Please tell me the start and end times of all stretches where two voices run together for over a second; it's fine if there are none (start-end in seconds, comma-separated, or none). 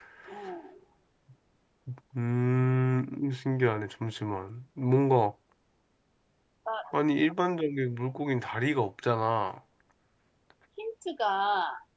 none